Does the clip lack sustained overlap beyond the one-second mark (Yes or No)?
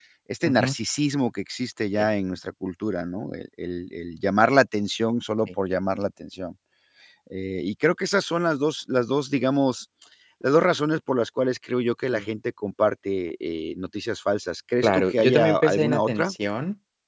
No